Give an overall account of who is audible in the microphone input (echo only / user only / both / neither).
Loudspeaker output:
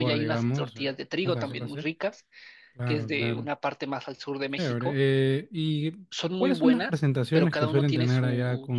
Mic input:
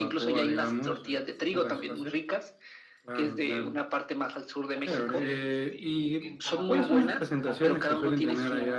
both